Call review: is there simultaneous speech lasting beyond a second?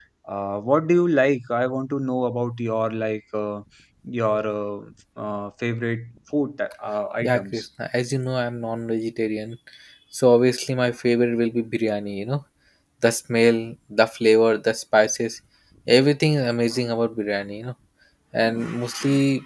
No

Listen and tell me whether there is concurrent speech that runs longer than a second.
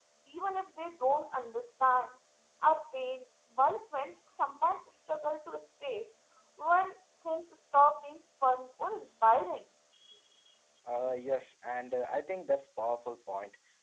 No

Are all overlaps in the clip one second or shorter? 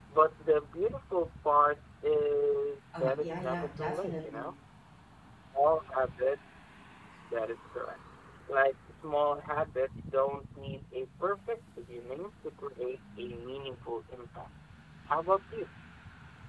No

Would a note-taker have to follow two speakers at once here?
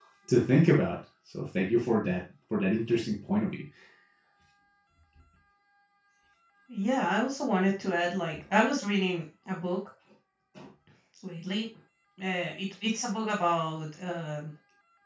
No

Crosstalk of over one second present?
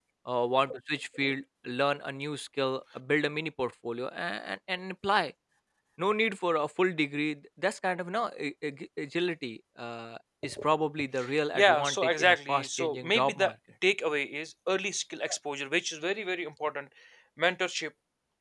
Yes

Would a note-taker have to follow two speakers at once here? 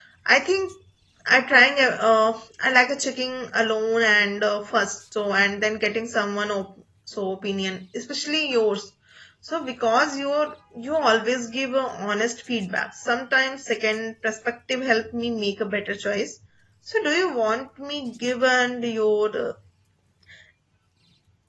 No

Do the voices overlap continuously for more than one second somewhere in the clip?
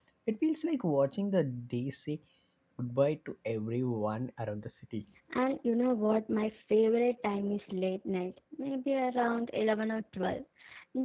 No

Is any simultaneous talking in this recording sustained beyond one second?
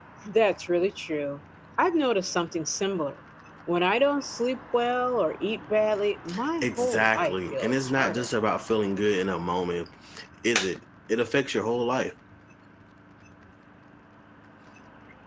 Yes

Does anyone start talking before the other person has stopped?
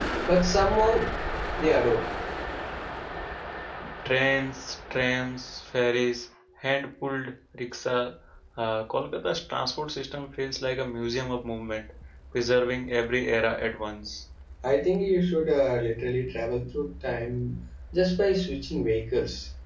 No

